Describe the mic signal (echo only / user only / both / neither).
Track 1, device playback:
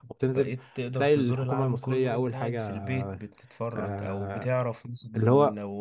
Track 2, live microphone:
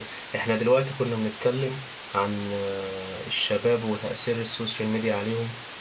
user only